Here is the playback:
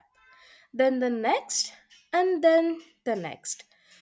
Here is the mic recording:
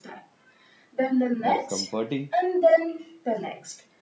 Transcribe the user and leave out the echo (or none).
That's comforting.